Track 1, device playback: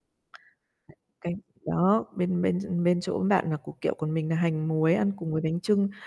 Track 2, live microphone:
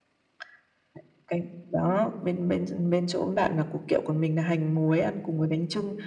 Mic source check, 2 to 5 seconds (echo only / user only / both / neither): echo only